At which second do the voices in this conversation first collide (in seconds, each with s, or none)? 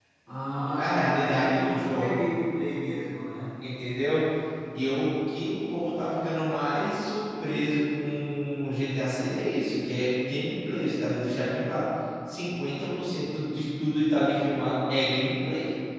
0.6 s